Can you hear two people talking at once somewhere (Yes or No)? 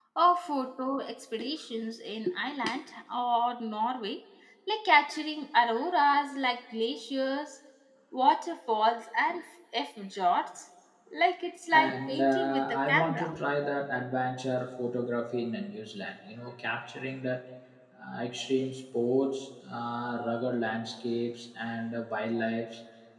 Yes